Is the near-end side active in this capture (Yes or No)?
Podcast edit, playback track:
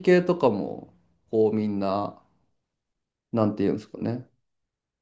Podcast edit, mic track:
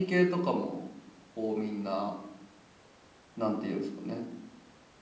No